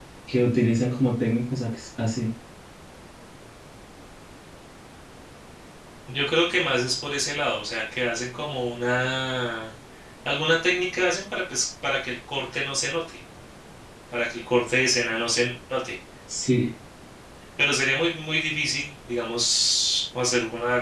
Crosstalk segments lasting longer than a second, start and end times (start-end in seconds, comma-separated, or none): none